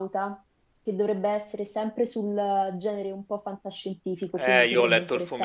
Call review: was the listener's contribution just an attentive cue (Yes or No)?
No